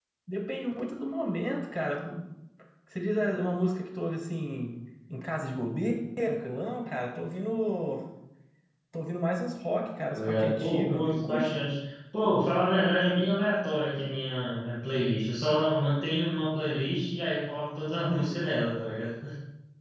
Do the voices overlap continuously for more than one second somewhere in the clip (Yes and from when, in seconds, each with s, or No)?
Yes, from 10.1 s